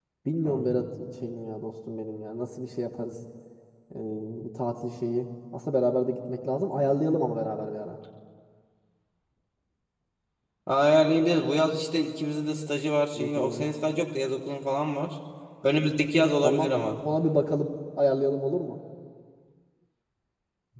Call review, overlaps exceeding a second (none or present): none